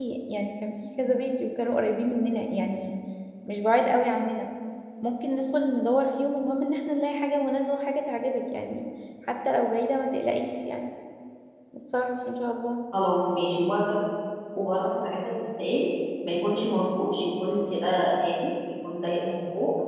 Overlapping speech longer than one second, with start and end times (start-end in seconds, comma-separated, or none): none